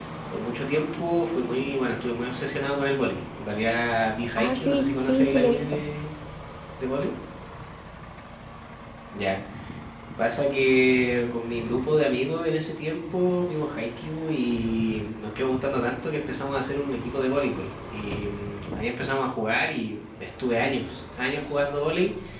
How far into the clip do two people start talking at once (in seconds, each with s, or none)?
4.4 s